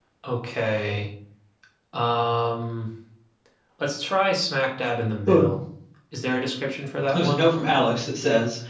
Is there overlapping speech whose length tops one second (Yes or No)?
No